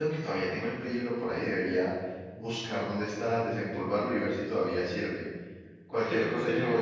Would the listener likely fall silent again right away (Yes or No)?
Yes